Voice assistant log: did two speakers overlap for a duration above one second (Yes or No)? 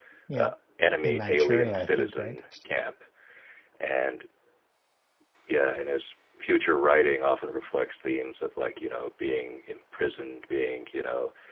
Yes